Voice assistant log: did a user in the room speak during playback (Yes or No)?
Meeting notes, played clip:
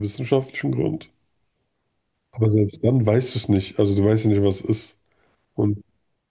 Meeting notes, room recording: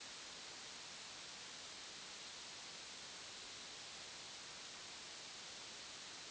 No